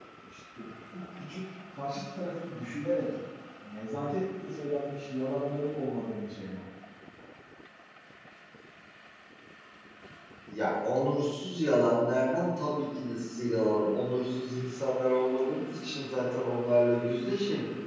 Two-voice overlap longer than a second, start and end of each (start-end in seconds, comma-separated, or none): none